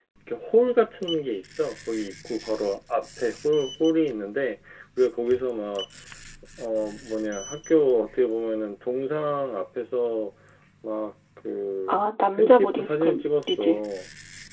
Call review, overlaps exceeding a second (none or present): present